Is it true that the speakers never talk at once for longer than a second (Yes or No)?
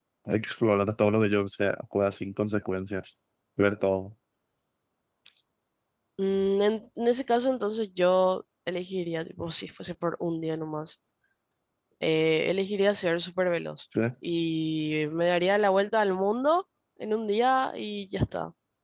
Yes